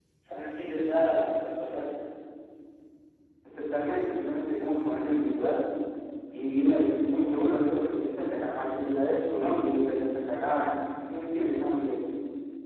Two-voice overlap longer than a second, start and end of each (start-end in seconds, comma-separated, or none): none